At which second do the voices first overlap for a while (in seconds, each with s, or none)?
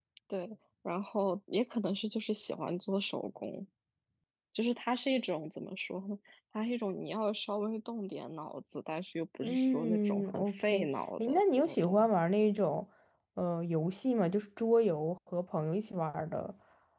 9.4 s